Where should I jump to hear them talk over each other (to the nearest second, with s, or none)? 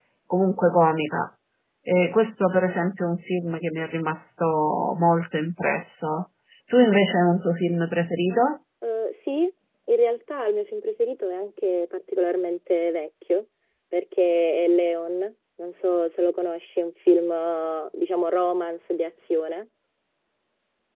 none